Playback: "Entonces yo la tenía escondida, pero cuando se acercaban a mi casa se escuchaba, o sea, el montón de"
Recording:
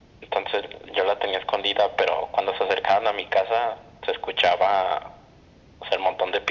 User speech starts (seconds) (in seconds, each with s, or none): none